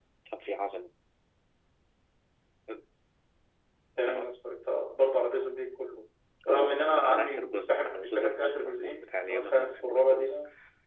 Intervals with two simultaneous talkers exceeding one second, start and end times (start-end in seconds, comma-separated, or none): 6.5-10.3